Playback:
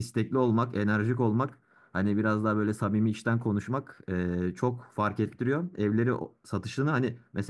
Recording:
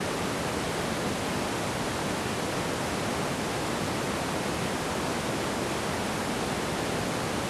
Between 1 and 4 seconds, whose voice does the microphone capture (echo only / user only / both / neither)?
neither